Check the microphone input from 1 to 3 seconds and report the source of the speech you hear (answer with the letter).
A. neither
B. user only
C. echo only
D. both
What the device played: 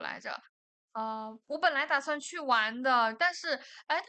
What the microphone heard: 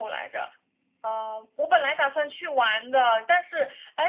C